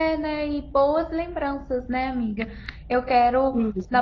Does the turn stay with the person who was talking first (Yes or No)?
Yes